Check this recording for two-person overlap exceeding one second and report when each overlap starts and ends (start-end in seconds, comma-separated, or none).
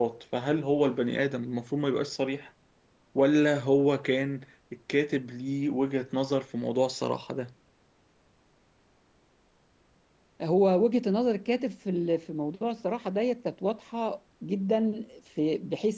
none